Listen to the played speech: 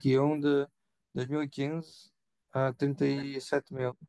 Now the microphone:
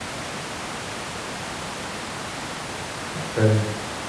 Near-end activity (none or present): present